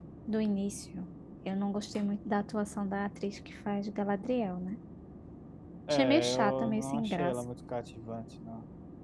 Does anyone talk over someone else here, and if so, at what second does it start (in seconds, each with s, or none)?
5.9 s